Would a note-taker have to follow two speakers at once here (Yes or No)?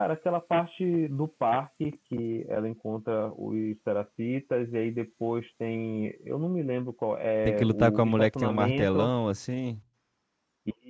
Yes